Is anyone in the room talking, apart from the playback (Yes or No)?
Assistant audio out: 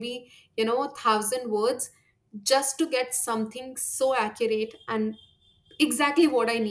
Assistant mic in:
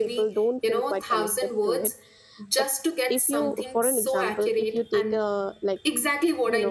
Yes